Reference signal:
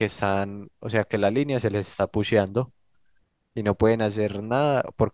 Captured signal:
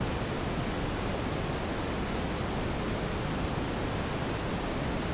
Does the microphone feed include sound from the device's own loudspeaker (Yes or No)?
No